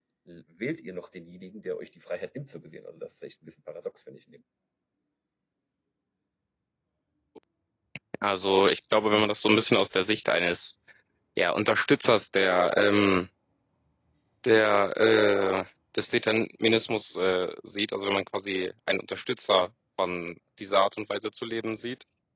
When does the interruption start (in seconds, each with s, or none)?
none